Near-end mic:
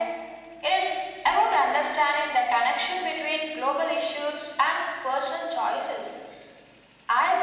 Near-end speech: none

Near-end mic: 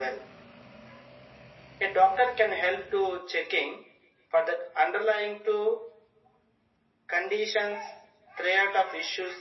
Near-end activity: none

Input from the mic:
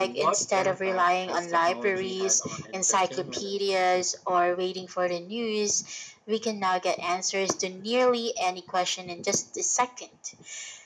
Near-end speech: none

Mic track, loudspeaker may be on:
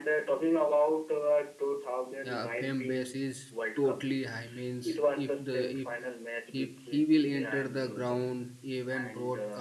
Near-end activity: present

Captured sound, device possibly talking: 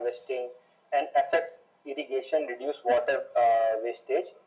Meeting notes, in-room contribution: none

